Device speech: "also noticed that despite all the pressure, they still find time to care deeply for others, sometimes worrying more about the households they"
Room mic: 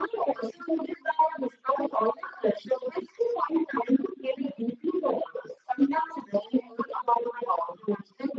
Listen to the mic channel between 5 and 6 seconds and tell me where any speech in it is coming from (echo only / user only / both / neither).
echo only